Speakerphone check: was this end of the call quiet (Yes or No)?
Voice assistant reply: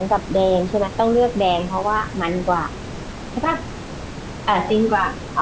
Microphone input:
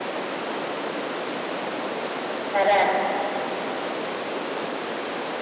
No